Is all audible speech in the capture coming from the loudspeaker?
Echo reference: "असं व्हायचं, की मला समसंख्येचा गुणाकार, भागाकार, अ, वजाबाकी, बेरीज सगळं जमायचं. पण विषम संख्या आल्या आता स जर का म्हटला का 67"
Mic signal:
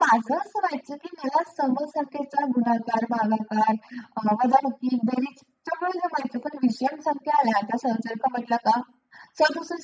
Yes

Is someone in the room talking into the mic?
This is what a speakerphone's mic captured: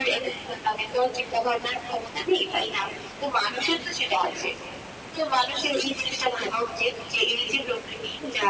No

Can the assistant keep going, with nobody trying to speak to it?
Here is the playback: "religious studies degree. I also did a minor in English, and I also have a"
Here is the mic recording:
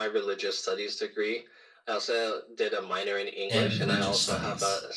No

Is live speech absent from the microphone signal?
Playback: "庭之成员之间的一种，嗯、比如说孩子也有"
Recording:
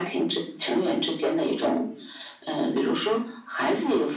Yes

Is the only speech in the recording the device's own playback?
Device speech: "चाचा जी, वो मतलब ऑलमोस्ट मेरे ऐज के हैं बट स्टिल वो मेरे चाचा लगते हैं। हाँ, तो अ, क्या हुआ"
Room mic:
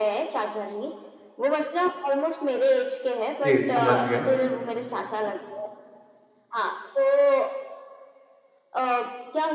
No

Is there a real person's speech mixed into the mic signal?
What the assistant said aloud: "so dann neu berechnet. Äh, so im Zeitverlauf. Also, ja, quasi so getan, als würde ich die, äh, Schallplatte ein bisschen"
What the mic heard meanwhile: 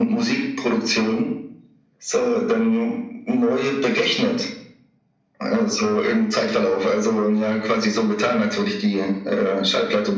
No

